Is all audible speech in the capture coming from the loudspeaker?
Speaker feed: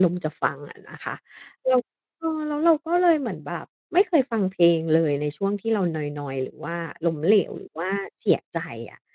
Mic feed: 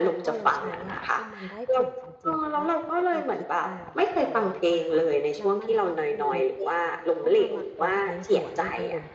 No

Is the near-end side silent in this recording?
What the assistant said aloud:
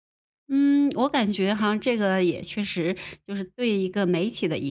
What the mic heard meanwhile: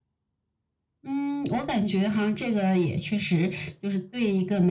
Yes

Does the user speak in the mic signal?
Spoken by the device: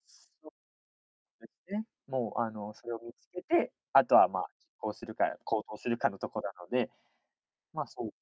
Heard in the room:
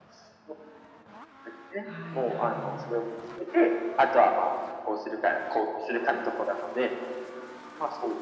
Yes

